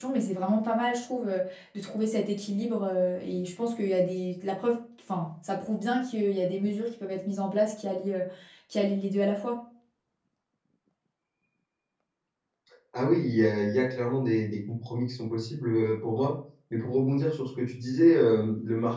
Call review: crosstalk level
none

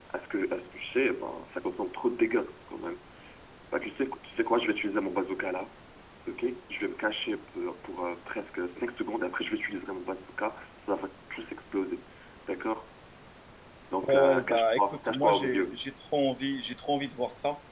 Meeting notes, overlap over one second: present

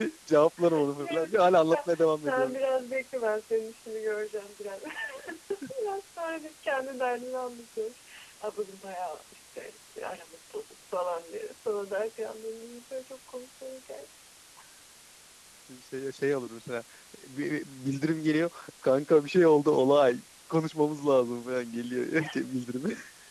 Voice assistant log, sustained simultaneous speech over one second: present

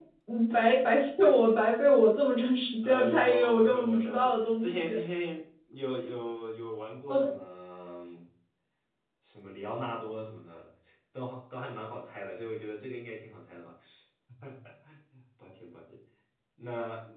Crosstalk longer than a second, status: present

